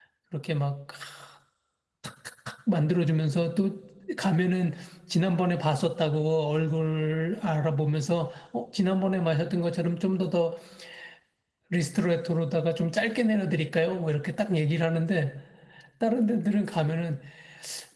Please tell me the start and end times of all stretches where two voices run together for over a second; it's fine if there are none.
none

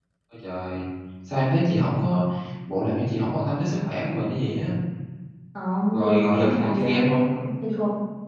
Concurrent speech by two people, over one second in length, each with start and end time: 5.9-7.3

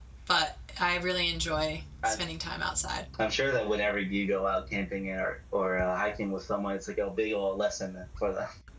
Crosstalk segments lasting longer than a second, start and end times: none

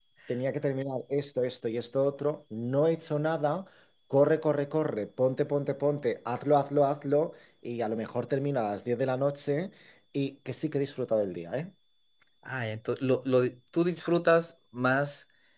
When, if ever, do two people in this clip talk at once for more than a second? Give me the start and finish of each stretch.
none

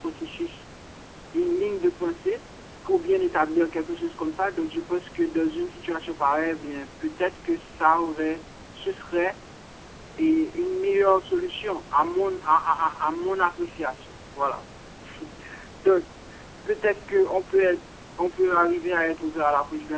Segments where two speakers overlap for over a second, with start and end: none

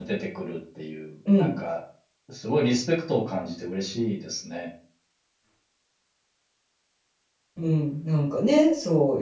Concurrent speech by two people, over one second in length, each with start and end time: none

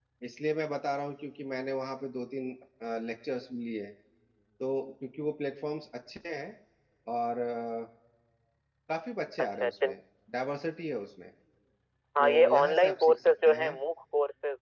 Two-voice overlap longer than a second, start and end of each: 12.2-13.7

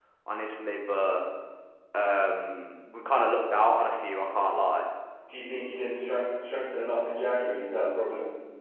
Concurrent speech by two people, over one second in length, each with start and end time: none

